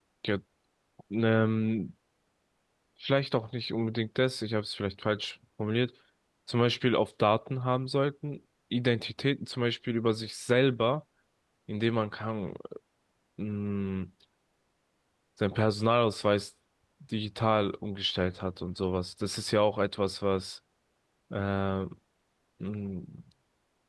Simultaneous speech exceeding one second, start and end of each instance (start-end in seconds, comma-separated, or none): none